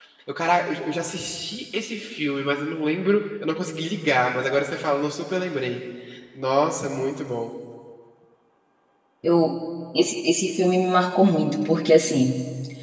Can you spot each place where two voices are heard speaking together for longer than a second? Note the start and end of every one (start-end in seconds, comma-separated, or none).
none